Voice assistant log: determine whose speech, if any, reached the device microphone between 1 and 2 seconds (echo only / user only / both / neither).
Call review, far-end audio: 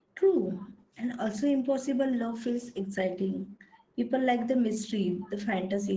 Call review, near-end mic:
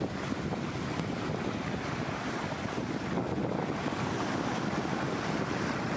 neither